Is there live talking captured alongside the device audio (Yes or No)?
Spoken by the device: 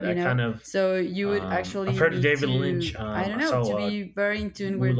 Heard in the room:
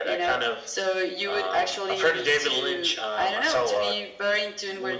No